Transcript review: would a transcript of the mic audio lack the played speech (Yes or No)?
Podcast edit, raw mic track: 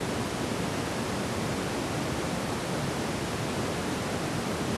Yes